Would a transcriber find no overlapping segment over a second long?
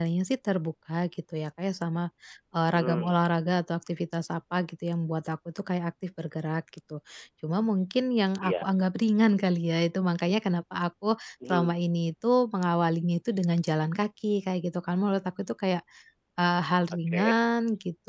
Yes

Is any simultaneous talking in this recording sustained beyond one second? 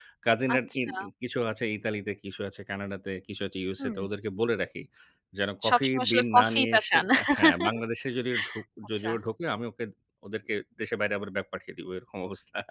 Yes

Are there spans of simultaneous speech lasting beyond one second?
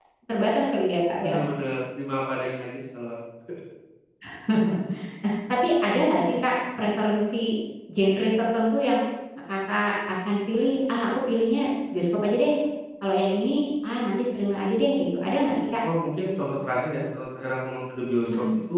No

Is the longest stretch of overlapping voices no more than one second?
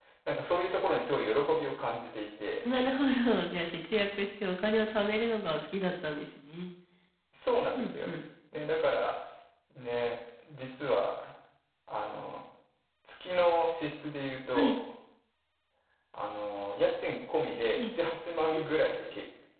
Yes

